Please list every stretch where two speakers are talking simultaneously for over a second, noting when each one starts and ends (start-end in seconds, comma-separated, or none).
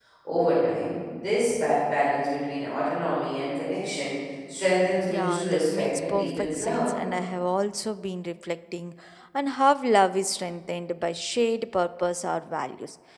5.1-6.9